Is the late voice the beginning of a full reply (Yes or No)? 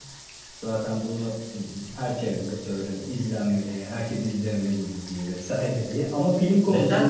Yes